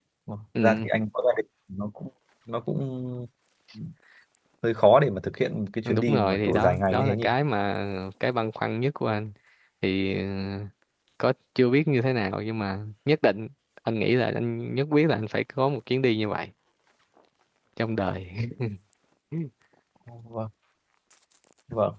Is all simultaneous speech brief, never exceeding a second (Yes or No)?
No